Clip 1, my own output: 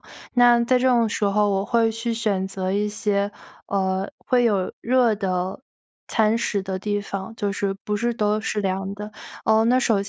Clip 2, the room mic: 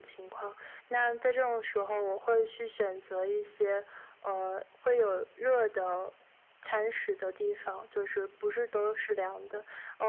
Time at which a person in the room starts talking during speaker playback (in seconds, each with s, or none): none